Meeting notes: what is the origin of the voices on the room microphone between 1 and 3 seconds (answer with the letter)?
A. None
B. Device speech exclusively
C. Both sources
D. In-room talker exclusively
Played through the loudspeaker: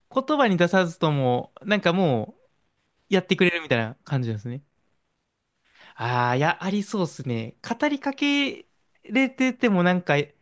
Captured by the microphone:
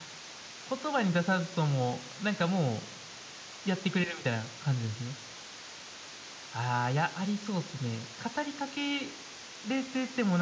B